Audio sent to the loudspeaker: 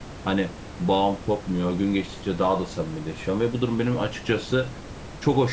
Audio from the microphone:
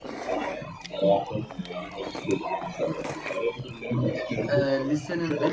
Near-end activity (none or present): present